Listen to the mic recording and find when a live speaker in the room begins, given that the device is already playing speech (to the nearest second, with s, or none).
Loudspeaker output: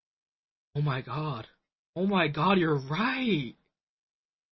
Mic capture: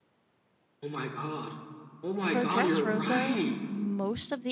2 s